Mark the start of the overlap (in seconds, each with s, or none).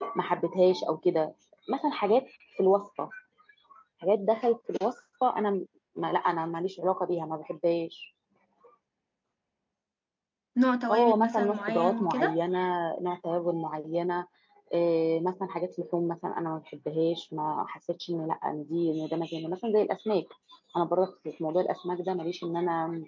10.9 s